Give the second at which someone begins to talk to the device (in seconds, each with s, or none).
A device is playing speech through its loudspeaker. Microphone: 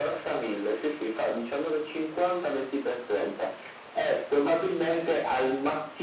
none